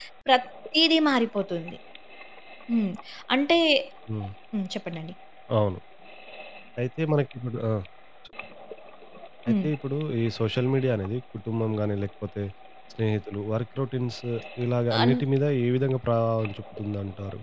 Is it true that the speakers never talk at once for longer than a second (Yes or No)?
Yes